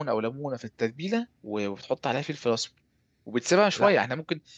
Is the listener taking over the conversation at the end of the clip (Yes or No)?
No